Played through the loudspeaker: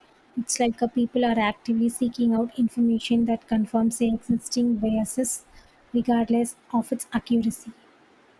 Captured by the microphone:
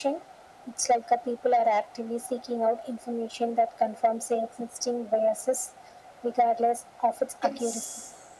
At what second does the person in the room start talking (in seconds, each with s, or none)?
7.4 s